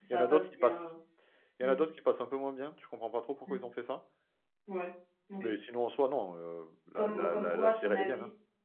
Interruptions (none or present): present